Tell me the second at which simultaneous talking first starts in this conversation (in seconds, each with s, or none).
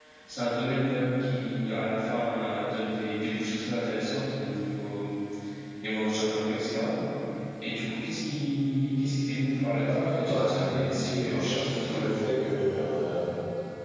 9.8 s